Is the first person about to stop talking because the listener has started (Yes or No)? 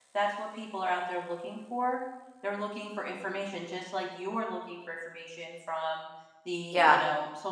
No